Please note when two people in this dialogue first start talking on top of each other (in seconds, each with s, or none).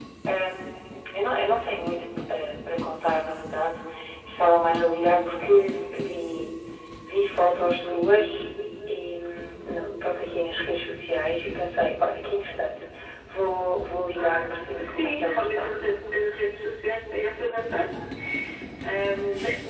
14.1 s